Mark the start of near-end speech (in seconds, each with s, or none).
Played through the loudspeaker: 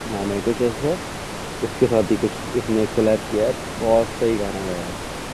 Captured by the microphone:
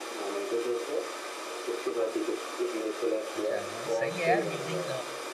3.4 s